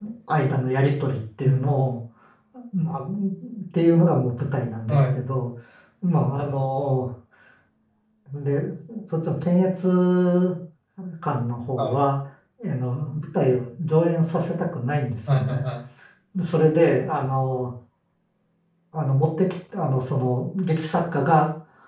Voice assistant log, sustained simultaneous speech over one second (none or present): none